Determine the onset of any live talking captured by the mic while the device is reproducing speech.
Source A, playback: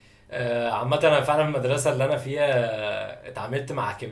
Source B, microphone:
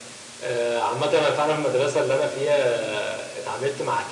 none

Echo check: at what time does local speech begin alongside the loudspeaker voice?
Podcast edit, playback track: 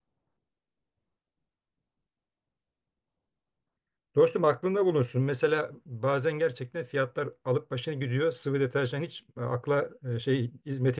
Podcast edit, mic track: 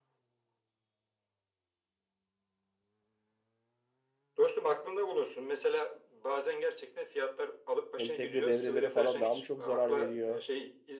8.0 s

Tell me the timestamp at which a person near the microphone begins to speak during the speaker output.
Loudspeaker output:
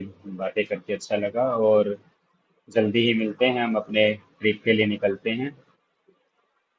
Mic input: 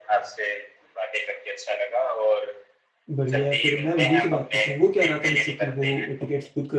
3.2 s

